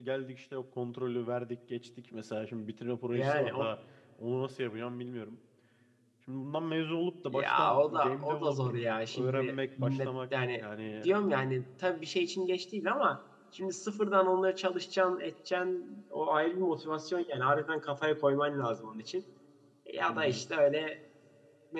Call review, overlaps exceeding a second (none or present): present